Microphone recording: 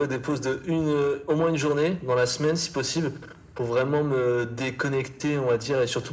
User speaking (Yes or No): No